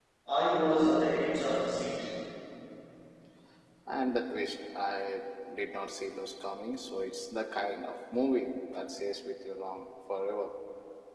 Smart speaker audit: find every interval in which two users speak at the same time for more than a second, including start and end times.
none

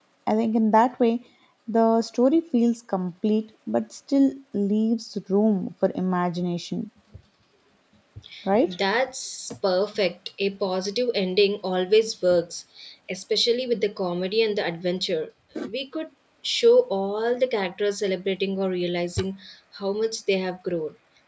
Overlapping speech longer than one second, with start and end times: none

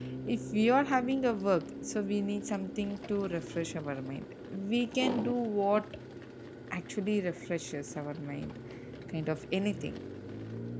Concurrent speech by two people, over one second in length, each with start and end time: none

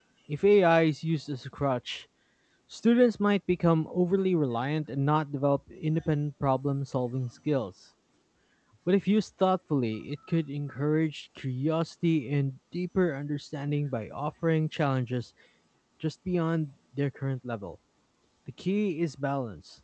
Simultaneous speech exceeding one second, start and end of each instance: none

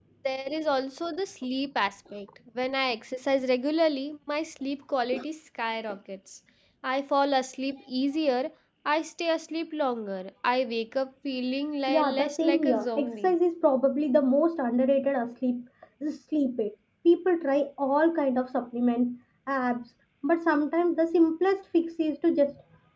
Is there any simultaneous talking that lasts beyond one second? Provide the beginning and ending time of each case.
11.9-13.3

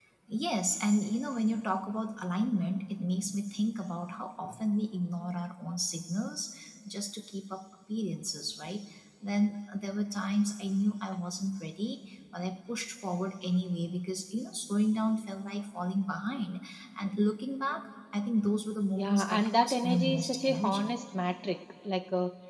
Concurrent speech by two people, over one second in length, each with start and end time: 18.9-20.9

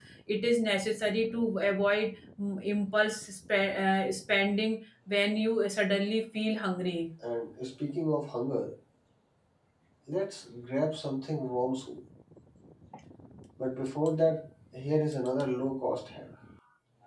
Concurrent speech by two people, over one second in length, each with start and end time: none

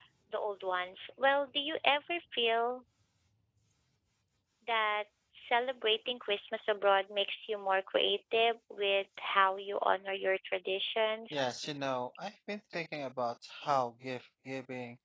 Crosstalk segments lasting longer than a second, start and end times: none

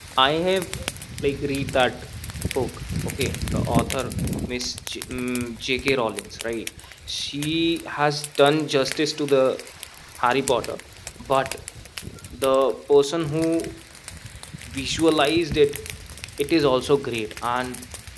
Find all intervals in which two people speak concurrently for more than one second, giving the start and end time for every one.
none

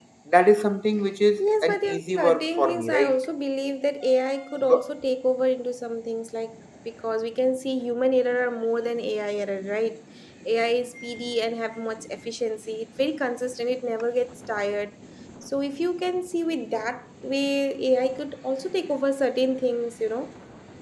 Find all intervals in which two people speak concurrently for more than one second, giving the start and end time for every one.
1.4-3.2

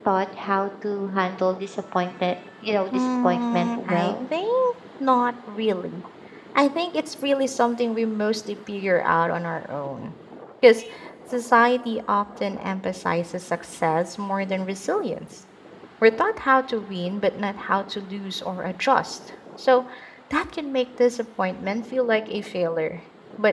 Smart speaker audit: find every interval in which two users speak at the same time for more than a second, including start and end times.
2.9-4.2

